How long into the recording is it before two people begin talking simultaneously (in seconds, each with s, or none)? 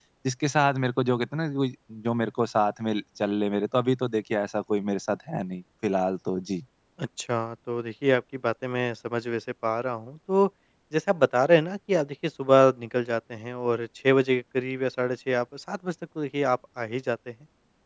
none